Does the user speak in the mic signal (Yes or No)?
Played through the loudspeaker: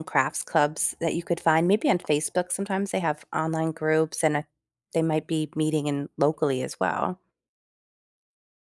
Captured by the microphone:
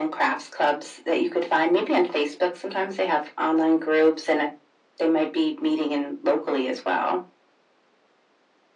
No